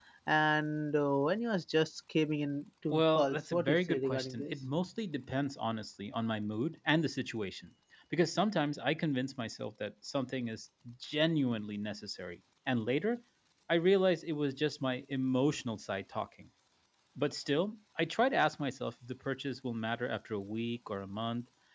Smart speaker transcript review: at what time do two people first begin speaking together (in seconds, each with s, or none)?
2.9 s